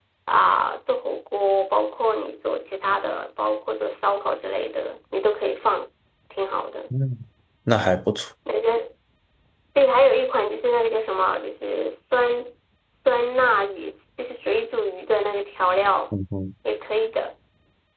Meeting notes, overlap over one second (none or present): none